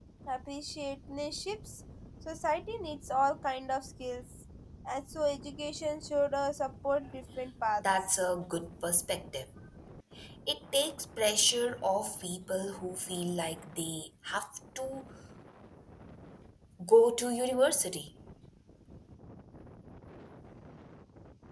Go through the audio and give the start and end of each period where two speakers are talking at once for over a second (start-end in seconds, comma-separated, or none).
none